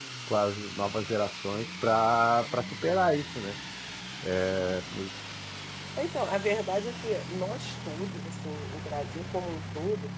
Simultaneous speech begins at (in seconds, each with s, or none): none